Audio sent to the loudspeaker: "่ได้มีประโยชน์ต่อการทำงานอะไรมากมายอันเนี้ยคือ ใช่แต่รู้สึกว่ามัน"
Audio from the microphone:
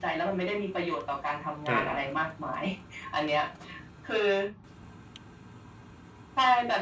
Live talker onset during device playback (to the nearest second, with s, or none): 2 s